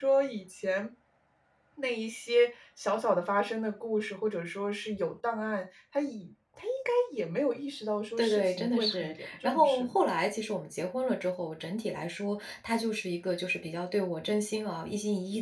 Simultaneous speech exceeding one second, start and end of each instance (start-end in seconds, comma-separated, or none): 8.2-10.0